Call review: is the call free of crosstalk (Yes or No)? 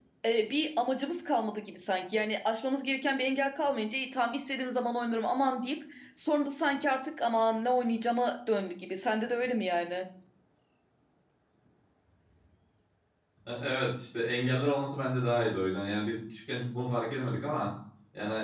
Yes